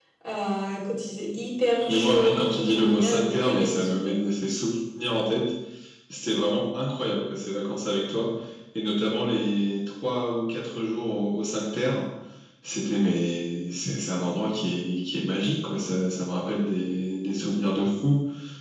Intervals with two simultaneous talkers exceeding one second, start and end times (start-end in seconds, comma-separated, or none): 1.9-4.2